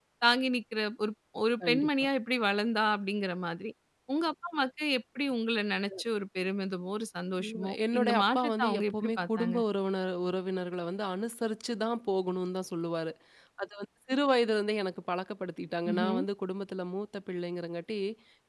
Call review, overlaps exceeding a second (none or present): present